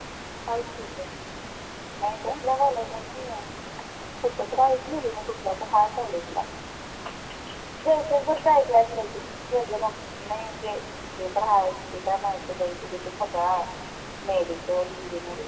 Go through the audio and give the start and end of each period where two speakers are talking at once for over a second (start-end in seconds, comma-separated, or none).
none